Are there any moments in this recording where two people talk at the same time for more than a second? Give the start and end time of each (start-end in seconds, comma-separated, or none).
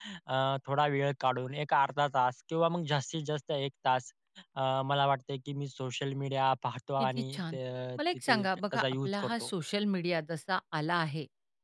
8.3-9.5